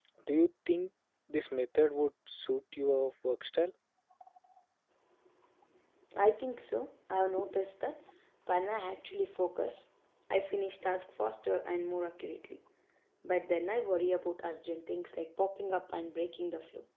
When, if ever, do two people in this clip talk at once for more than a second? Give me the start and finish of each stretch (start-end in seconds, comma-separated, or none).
none